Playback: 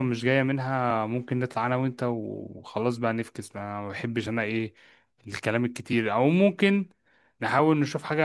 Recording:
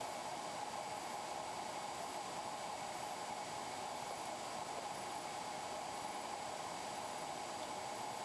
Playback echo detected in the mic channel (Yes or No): No